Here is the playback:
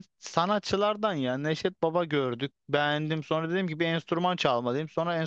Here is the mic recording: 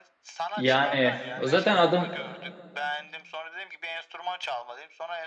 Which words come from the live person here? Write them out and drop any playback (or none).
Yani o zaten adım